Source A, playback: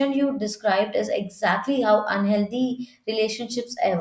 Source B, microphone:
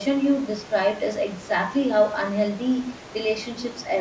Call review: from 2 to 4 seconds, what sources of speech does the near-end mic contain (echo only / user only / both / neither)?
echo only